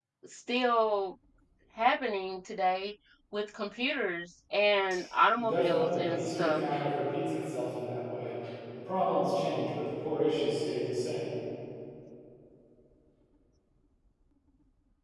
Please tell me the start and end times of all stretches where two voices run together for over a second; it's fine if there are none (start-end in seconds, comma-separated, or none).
5.4-6.6